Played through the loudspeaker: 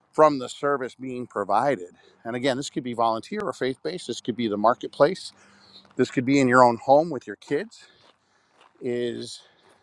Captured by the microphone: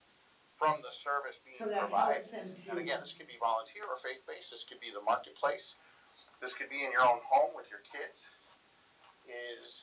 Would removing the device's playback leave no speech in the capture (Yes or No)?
No